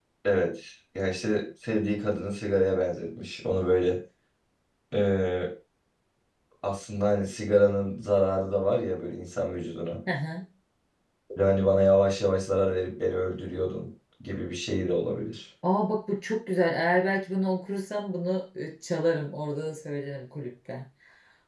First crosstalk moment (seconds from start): none

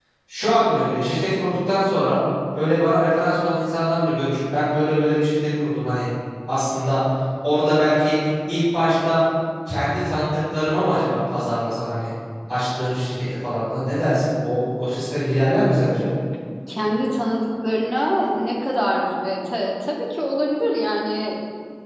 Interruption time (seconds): none

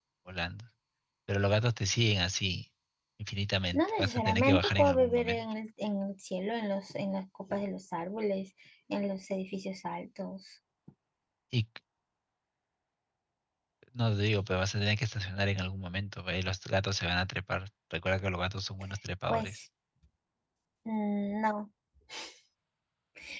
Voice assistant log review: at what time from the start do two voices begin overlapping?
3.7 s

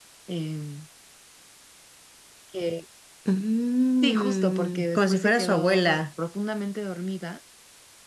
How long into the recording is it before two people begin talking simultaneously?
4.0 s

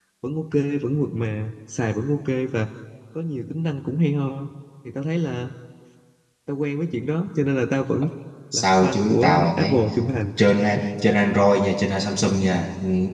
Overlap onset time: 8.5 s

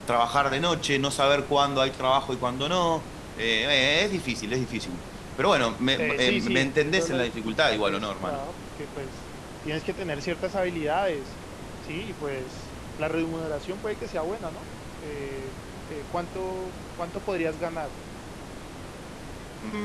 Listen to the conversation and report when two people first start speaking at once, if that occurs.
6.0 s

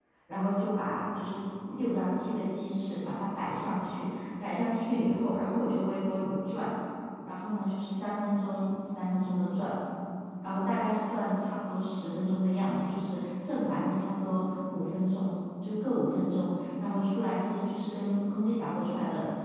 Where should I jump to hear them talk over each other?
none

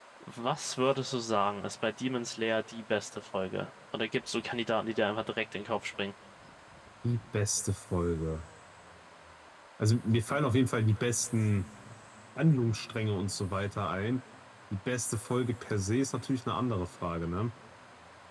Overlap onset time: none

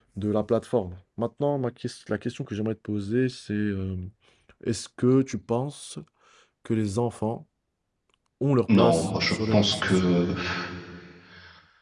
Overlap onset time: 8.8 s

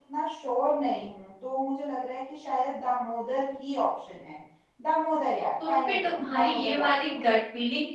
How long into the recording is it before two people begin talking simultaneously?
5.7 s

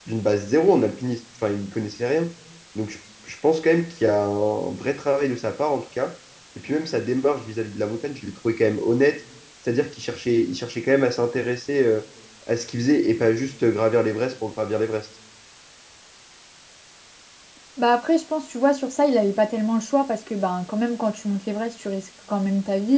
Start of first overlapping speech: none

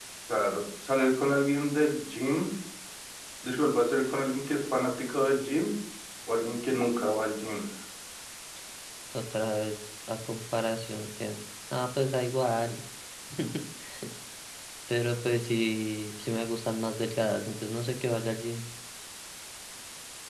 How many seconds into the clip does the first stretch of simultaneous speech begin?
none

